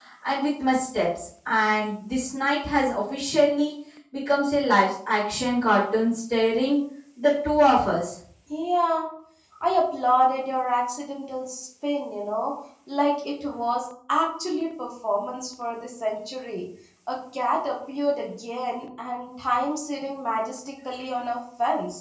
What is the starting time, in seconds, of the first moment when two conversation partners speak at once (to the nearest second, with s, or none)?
none